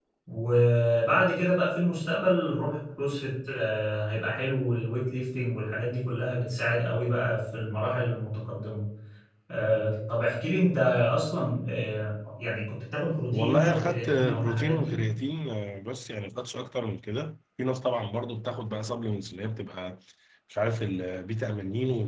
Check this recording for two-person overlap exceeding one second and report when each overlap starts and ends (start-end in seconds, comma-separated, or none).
13.3-15.0